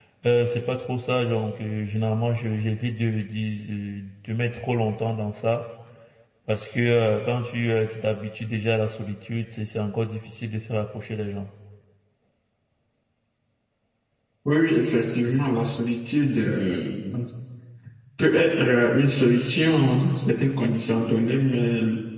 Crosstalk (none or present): none